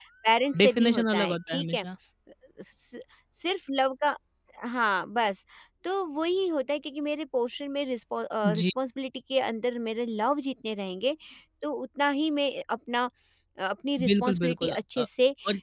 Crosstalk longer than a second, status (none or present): present